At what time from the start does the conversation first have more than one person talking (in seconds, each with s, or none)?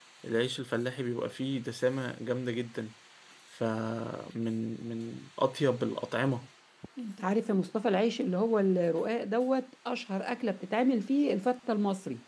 none